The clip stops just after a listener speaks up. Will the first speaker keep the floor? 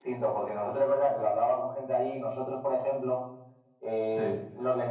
Yes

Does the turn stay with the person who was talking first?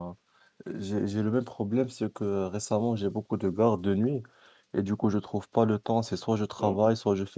Yes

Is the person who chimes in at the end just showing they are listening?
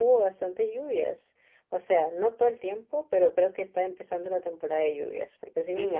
No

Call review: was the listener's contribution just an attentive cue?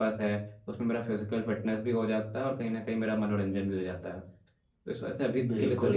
No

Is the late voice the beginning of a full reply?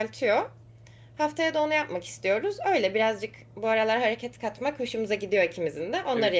Yes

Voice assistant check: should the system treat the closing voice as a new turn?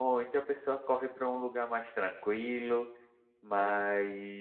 No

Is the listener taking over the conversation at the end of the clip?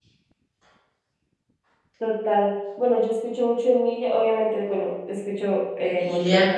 No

